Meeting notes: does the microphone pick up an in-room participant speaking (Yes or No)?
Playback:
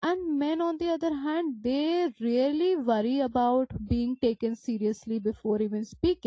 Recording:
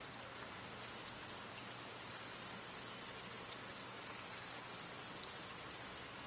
No